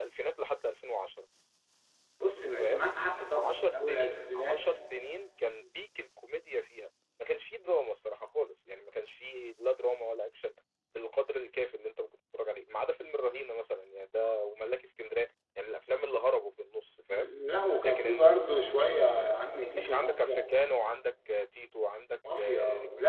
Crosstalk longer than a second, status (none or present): present